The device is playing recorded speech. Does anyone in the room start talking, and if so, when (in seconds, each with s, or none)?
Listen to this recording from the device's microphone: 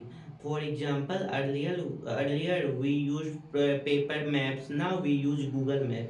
none